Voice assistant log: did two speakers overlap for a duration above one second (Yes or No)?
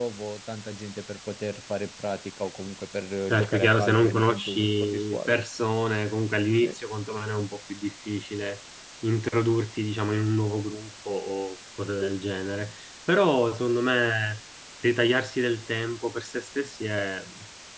Yes